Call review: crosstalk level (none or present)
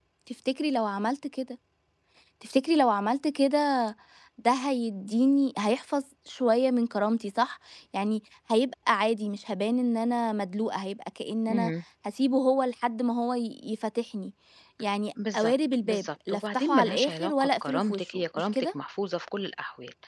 present